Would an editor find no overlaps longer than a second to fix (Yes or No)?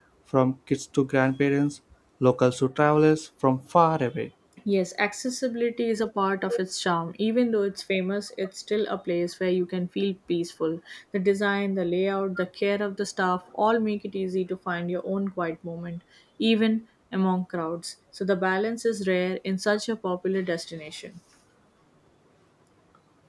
Yes